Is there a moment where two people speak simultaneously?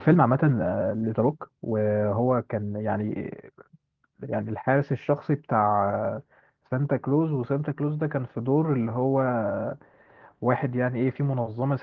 No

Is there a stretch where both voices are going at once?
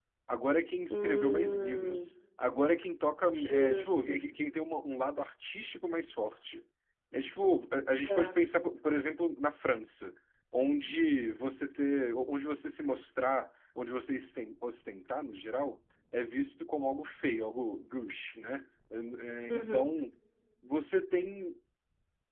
Yes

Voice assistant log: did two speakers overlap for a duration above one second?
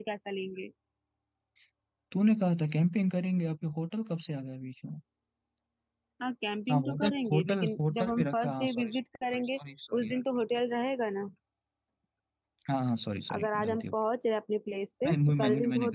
Yes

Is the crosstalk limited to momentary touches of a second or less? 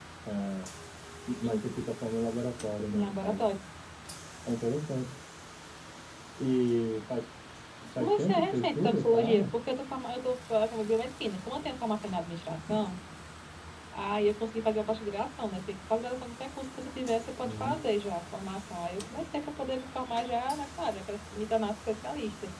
No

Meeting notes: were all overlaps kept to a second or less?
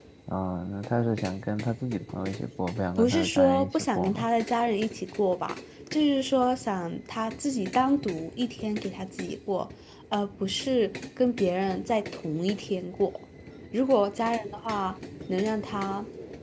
No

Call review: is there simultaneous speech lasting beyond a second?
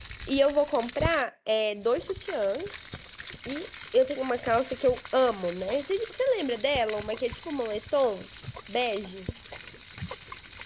No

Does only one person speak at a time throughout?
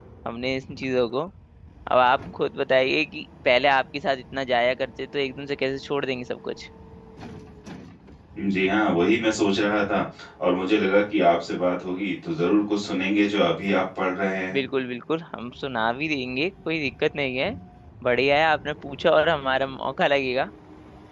Yes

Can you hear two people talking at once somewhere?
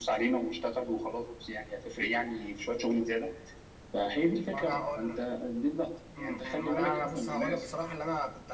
Yes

